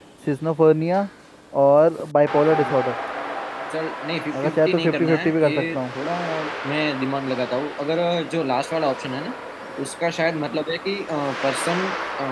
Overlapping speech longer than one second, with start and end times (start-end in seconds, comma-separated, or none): 4.4-5.8